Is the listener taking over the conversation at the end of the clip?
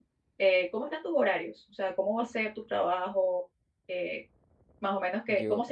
No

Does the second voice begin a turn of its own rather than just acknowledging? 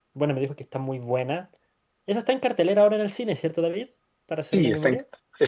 Yes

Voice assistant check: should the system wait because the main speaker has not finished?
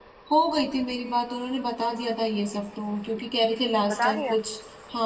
Yes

